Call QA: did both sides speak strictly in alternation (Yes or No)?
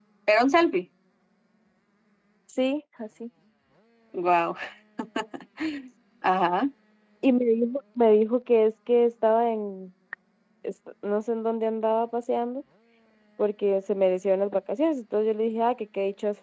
Yes